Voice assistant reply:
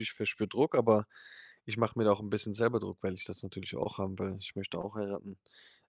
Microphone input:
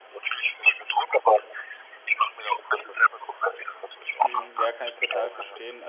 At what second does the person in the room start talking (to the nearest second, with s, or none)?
4 s